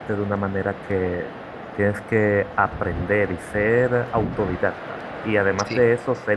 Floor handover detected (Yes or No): No